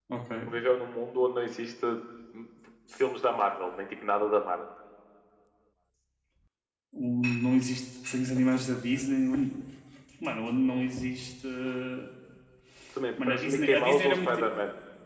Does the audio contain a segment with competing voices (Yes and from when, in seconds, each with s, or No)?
Yes, from 13.2 s